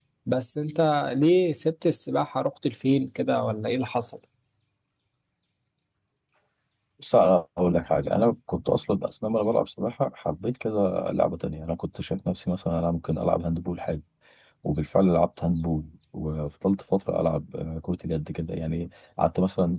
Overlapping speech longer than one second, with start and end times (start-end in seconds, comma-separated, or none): none